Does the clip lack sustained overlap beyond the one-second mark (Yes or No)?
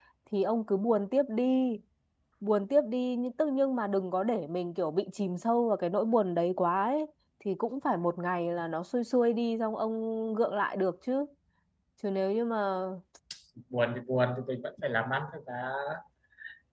Yes